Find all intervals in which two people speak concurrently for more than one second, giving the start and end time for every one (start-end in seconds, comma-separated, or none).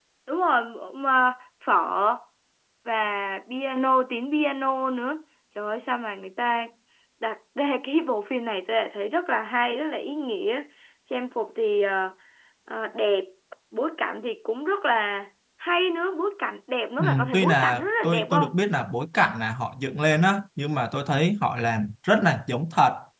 17.0-18.5